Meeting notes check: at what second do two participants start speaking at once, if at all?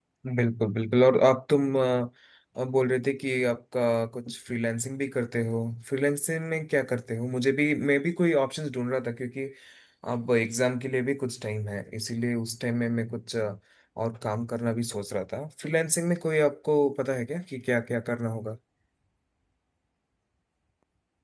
none

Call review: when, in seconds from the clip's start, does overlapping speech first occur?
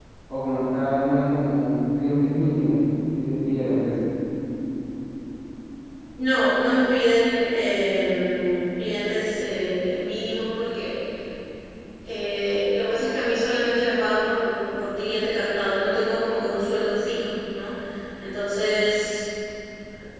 none

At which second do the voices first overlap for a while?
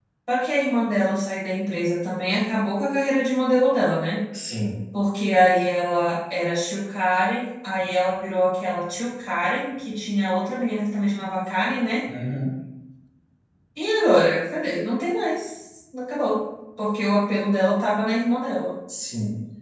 none

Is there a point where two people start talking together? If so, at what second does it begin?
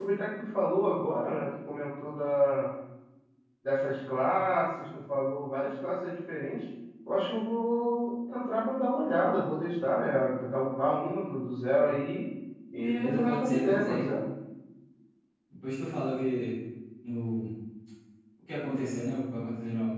12.8 s

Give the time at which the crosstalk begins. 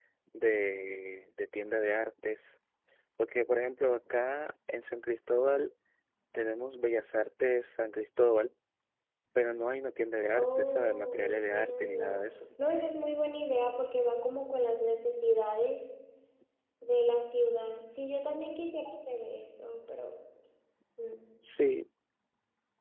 10.4 s

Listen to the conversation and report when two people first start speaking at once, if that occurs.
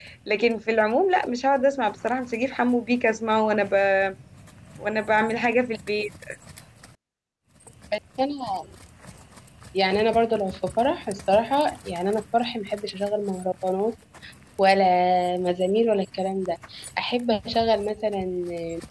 none

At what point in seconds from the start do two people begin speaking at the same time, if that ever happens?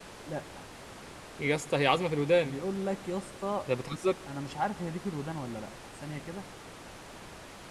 none

